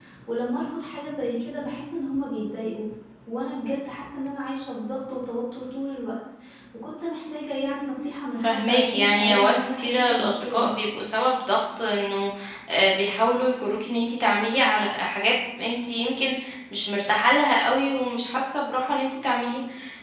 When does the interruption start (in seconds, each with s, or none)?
8.4 s